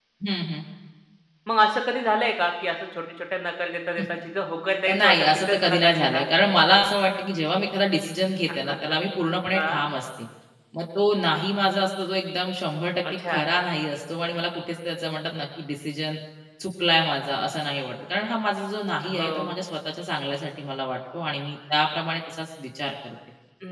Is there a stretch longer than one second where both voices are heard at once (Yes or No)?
Yes